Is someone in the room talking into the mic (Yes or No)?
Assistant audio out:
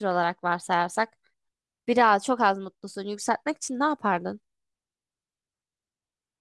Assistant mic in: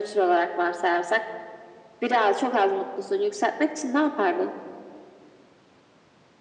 No